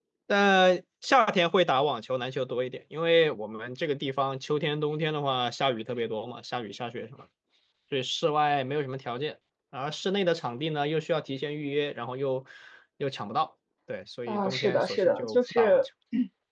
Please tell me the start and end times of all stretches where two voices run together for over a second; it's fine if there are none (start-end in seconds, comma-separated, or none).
14.3-15.8